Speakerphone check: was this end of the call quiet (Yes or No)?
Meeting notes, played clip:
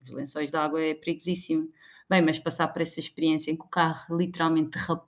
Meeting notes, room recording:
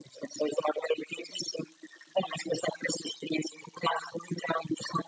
Yes